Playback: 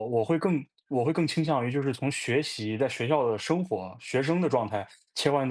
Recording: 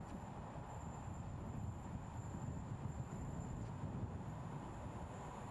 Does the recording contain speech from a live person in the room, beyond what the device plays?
No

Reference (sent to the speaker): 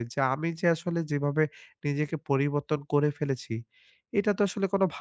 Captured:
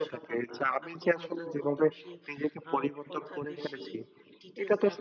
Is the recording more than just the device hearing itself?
Yes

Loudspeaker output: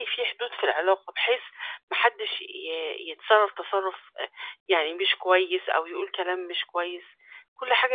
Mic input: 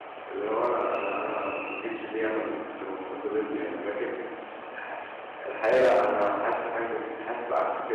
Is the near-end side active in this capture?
Yes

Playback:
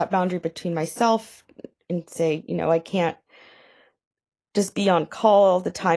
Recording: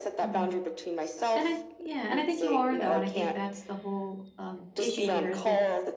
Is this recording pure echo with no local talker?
No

